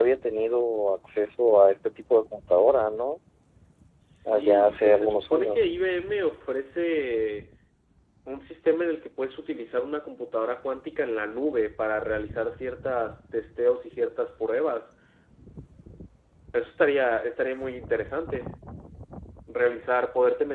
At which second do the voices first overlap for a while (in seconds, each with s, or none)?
4.3 s